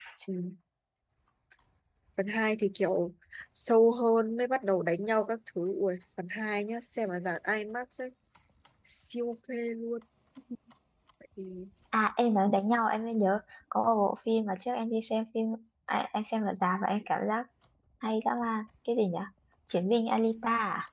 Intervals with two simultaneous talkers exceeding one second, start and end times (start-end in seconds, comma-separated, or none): none